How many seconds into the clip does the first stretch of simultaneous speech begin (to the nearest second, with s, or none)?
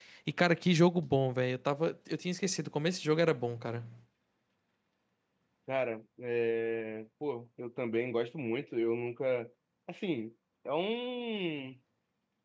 none